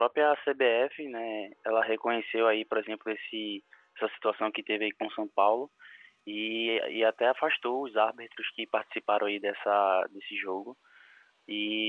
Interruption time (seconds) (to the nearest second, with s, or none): none